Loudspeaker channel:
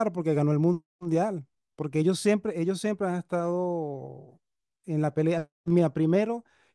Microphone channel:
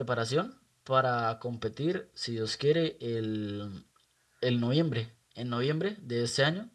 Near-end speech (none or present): present